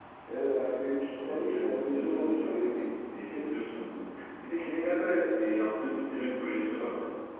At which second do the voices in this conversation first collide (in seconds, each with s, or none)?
1.2 s